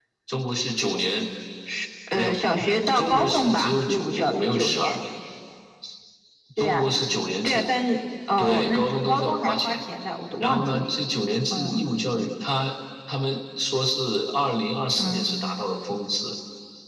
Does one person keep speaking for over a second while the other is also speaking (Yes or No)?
Yes